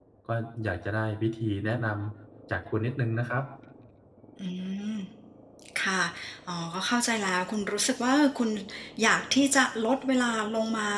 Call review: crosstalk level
none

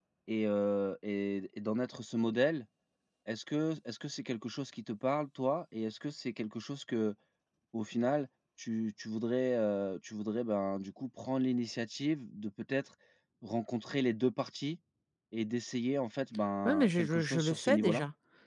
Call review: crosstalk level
present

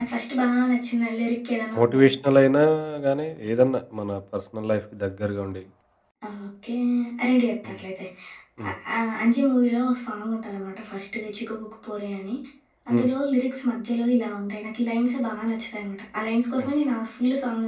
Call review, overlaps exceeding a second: none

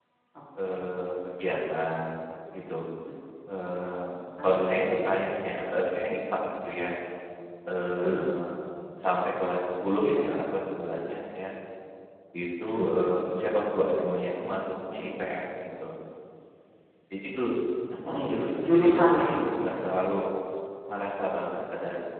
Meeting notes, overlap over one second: present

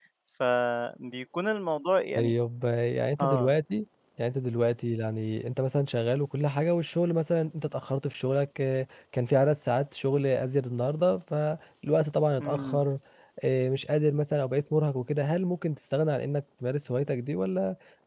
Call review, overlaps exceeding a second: none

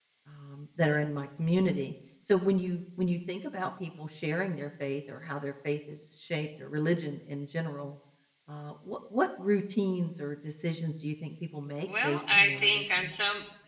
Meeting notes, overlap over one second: present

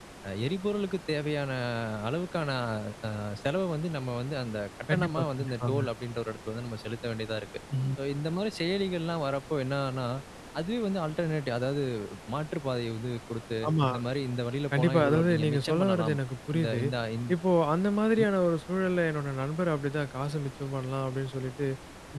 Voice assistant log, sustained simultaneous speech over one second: present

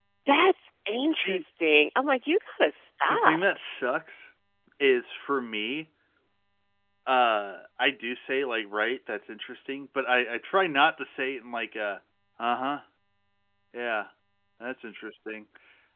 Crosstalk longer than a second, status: none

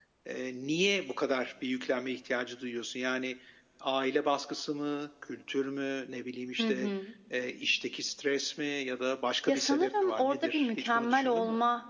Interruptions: present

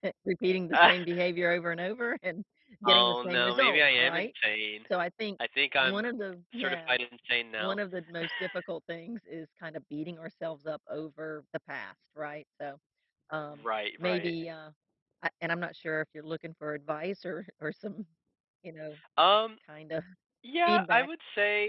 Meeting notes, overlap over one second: present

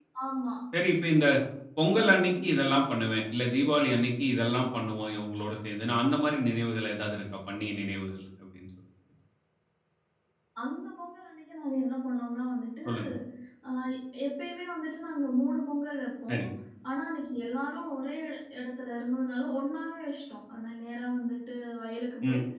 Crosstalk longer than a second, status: none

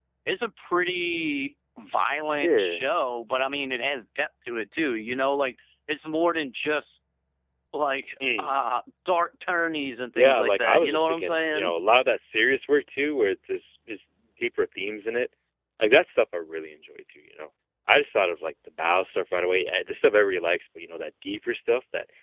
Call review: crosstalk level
present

